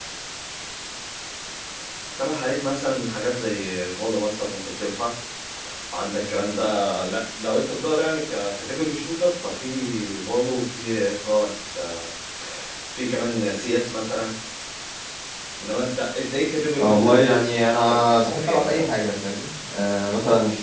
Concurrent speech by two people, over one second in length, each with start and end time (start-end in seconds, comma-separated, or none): 16.8-18.9